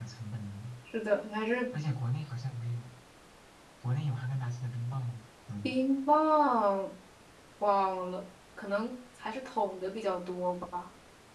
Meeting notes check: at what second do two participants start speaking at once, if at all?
none

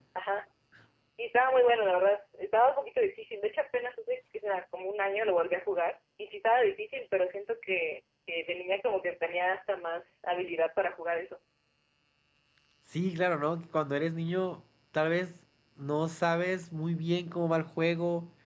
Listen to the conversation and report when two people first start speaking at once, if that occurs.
none

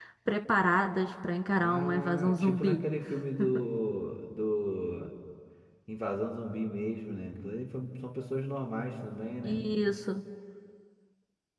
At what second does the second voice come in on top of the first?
1.6 s

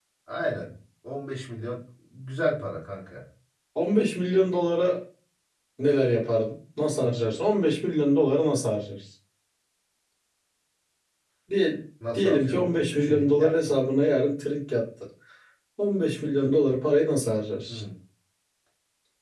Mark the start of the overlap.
12.1 s

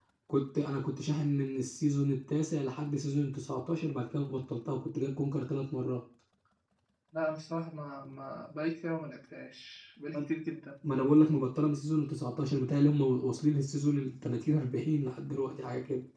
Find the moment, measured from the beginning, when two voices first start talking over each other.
none

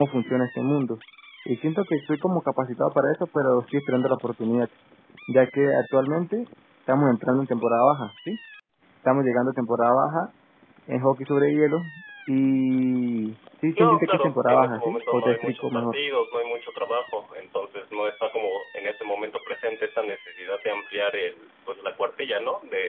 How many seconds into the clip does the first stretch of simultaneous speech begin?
13.8 s

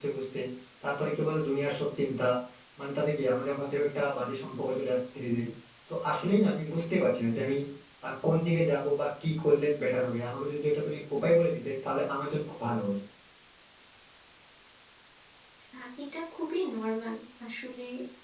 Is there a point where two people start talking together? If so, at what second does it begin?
none

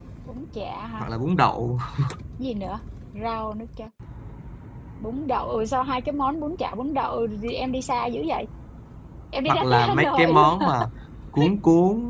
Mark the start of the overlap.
9.5 s

